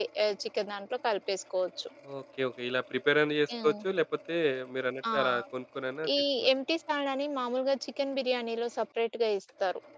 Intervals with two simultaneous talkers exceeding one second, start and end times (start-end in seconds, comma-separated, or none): none